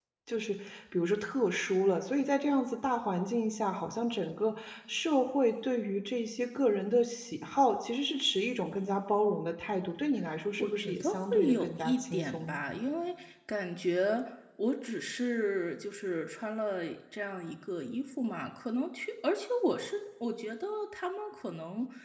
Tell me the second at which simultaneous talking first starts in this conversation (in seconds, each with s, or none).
10.6 s